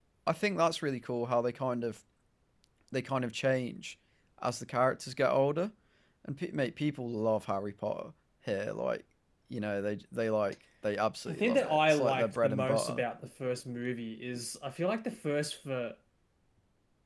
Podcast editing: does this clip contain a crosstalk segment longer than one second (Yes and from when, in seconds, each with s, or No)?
Yes, from 11.3 s